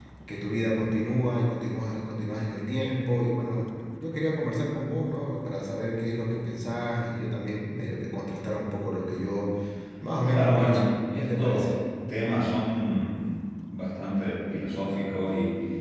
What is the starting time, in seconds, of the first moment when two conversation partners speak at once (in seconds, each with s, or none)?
10.3 s